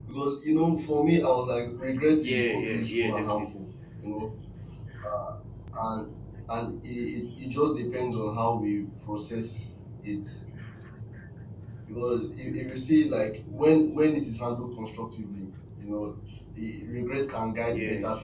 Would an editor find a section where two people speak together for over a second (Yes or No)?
Yes